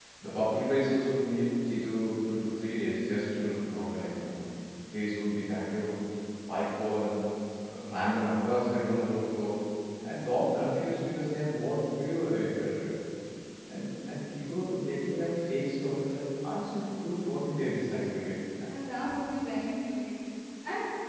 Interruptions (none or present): none